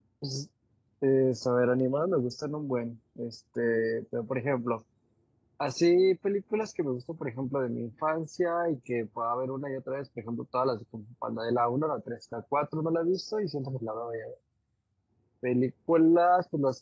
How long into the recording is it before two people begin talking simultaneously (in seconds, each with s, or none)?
none